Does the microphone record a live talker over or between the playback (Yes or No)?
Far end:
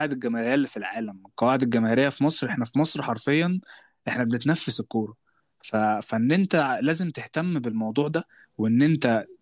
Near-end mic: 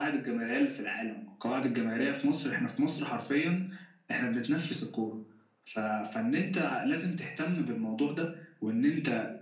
No